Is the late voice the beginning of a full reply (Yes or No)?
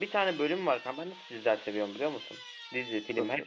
No